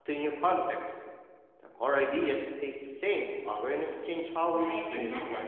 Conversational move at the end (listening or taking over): taking over